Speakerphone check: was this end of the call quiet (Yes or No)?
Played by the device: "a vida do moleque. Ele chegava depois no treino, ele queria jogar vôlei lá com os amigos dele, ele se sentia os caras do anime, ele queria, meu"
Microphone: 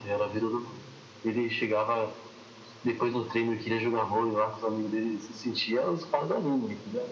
Yes